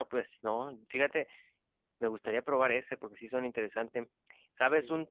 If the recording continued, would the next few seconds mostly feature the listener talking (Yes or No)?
No